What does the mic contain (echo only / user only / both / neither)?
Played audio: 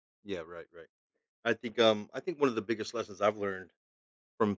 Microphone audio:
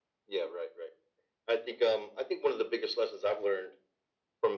echo only